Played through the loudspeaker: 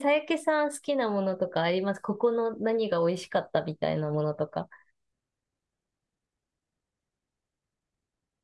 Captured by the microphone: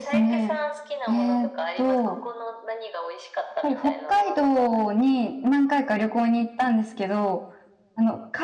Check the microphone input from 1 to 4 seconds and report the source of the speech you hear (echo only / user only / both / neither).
both